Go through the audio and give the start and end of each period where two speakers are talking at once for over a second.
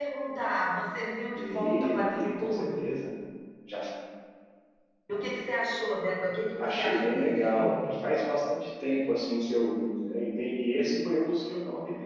1.3-2.9, 6.6-8.0

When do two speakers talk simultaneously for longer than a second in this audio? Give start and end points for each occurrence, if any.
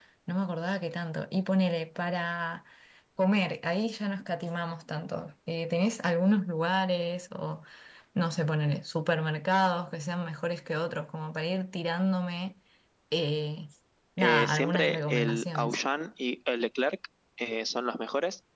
14.2-15.8

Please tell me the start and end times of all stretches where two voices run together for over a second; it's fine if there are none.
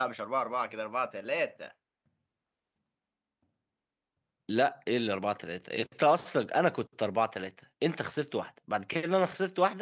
none

